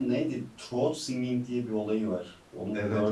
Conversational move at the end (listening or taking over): taking over